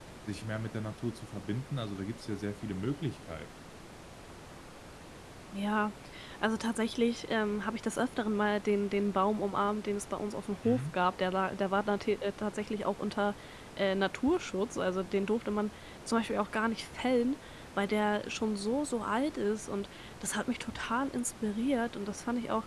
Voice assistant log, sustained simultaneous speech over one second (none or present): none